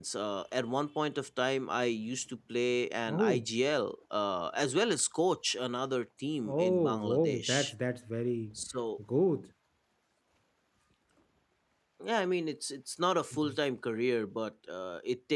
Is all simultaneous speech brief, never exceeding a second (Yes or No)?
No